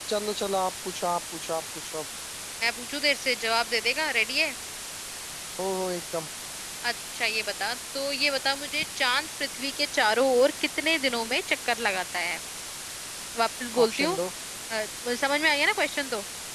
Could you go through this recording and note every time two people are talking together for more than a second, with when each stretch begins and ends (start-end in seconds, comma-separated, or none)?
none